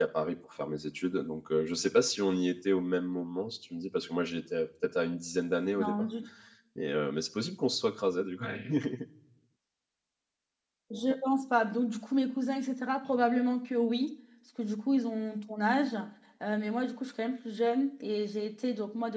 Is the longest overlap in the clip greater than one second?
No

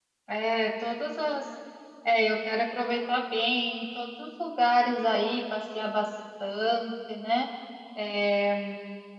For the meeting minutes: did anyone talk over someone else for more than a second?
No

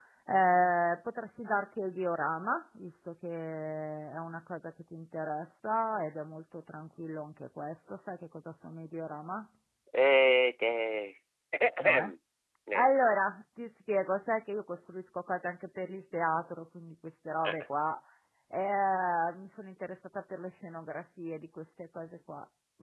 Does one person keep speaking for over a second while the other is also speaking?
No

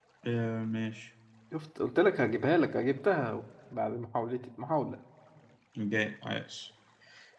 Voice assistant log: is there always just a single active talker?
Yes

